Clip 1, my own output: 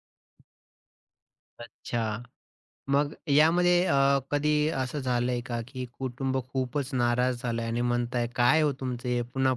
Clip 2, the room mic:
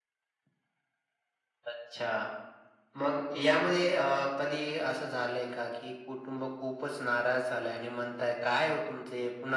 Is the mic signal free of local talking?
Yes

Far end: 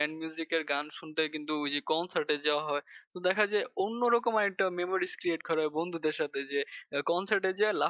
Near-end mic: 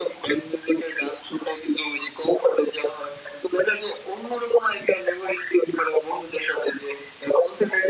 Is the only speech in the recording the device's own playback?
Yes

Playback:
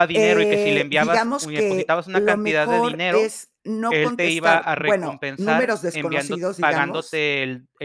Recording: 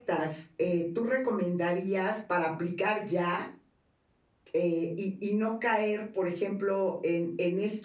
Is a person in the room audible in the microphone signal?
Yes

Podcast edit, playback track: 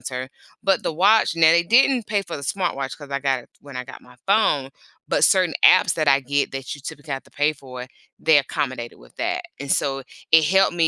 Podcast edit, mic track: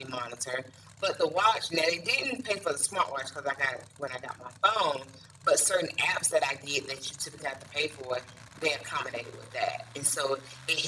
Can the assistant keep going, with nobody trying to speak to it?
Yes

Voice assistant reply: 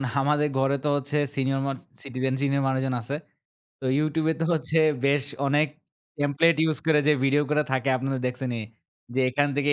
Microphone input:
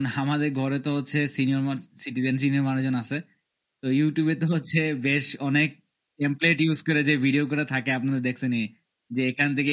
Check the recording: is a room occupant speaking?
No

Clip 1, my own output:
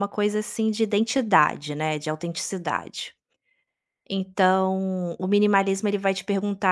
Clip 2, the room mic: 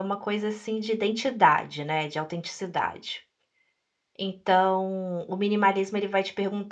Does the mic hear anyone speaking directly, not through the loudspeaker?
No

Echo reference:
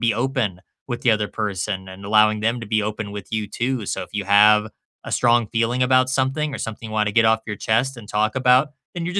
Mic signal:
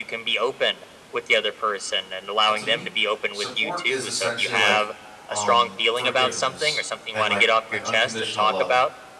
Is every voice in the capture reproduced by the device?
No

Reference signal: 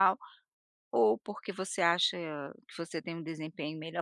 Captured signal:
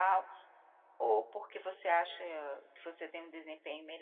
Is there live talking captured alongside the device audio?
No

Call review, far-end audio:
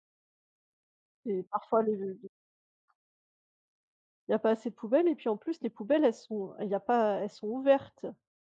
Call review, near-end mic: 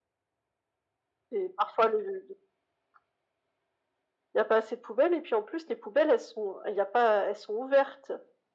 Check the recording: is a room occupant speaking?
No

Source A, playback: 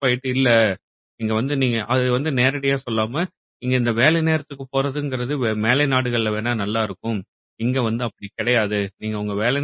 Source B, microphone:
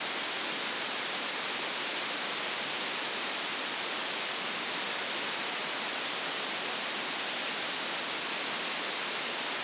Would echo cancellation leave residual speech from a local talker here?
No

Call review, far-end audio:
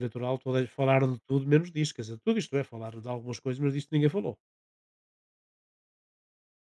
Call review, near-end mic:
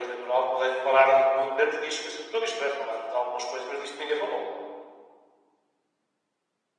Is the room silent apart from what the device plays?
Yes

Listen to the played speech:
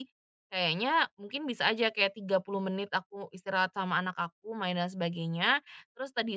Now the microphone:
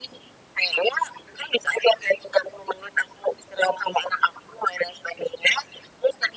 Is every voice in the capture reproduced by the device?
Yes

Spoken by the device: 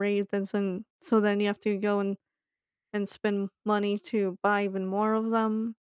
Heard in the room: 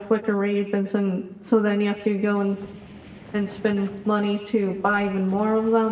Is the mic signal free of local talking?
Yes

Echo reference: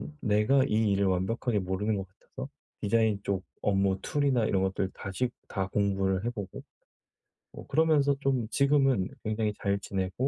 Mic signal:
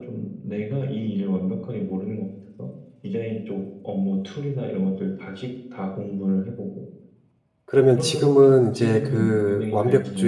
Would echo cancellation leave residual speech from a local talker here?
Yes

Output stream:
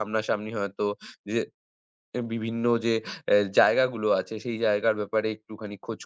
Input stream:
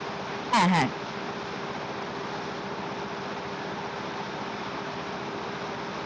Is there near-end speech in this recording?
Yes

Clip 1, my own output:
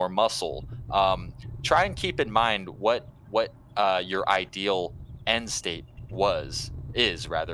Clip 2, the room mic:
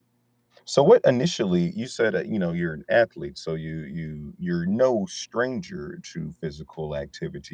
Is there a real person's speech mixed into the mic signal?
Yes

